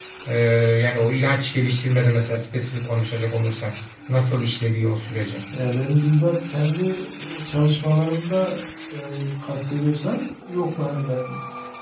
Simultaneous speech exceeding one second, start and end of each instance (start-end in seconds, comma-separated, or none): none